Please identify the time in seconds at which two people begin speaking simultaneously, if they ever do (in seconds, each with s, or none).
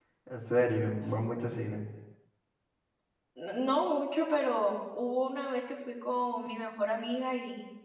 none